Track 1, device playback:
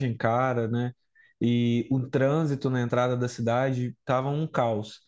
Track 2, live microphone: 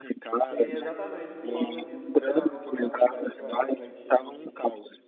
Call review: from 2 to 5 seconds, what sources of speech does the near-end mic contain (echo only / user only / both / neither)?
both